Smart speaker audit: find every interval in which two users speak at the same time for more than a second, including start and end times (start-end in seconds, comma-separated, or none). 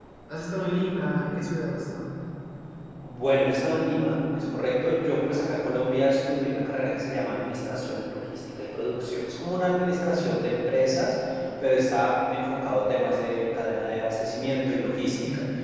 none